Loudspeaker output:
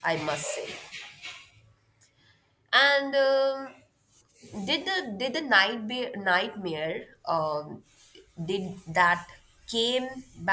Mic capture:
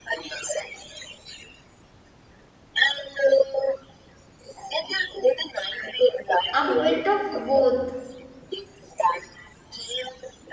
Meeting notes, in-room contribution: present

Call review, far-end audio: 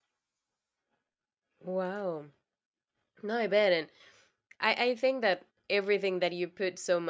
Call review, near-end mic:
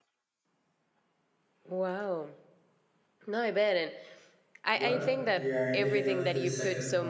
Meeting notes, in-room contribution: present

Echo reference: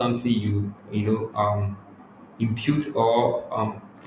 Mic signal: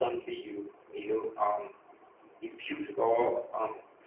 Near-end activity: none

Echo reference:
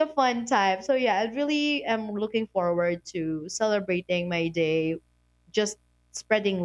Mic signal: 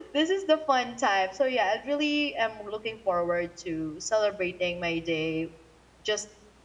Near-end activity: none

